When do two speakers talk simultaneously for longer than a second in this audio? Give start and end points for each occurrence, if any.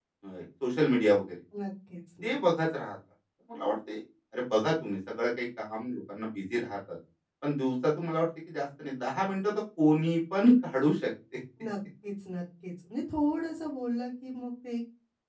none

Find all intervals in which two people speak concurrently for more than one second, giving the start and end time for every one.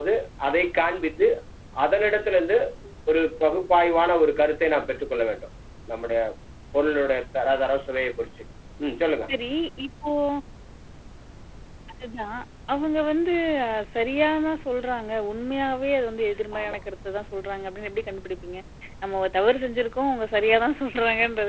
none

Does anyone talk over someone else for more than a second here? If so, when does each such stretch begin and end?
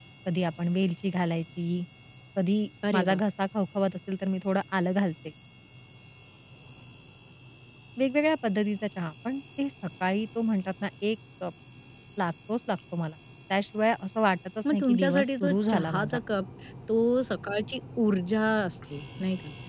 14.7-16.2

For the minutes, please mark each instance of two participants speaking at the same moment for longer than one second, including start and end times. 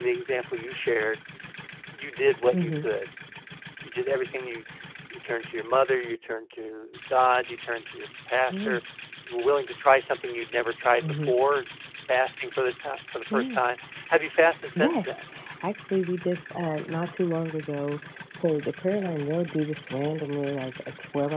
none

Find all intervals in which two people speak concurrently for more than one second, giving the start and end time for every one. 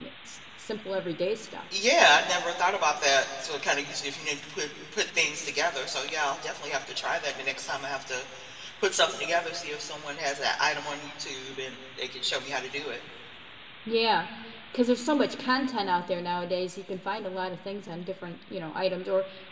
none

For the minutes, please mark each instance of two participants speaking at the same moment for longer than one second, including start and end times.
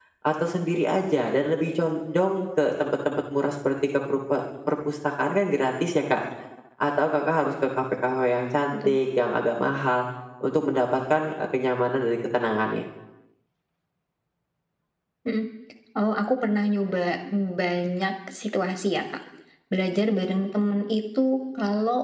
none

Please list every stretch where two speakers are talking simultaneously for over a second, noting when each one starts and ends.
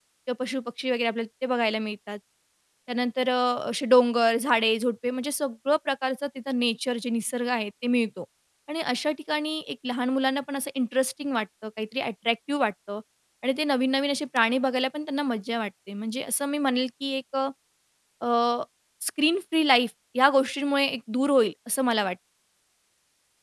none

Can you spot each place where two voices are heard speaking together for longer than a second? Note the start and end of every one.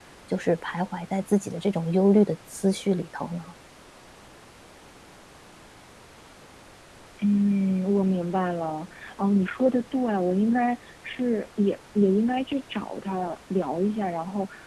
none

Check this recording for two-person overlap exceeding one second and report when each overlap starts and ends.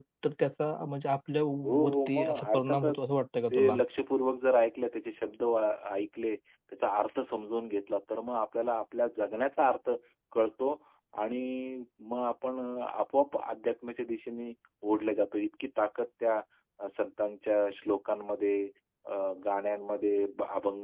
1.6-3.0

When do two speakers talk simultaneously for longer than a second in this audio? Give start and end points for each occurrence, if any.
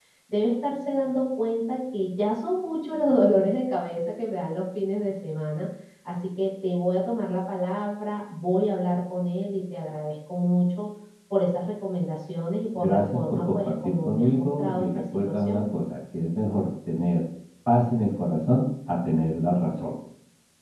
12.8-15.6

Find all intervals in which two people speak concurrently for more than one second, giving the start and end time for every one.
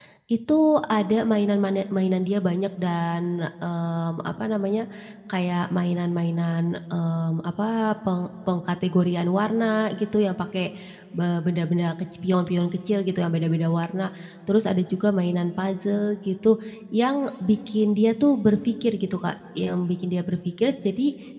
none

